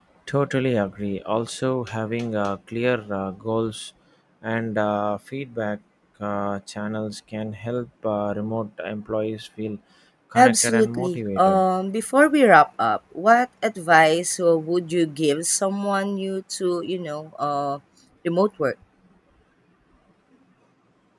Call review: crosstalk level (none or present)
present